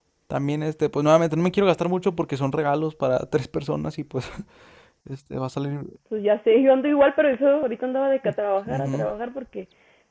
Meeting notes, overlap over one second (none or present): none